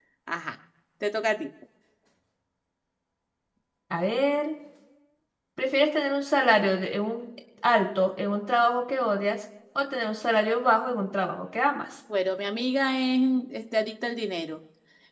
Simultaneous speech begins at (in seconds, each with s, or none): none